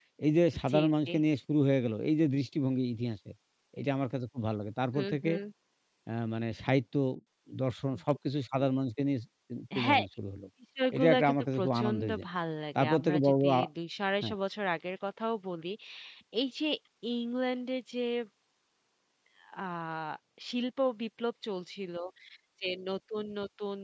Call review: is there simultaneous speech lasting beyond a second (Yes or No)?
Yes